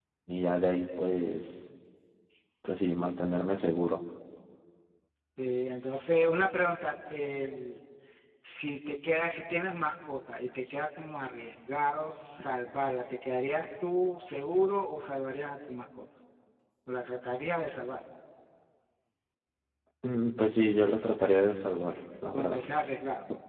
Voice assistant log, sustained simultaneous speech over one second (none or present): none